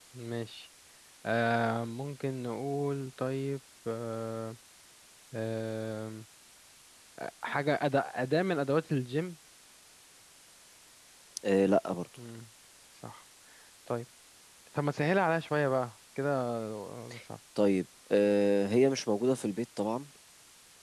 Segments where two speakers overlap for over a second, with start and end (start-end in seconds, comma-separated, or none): none